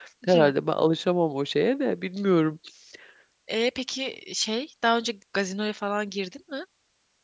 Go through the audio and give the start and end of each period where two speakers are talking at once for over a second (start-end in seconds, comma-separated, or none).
none